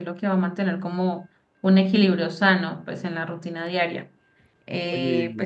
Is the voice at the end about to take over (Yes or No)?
Yes